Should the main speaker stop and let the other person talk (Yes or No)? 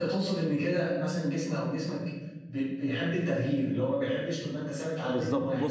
Yes